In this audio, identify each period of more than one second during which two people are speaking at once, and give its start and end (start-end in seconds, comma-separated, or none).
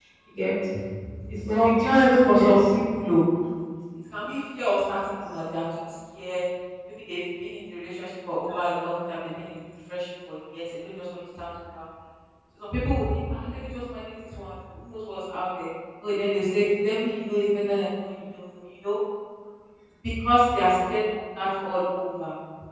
1.3-2.6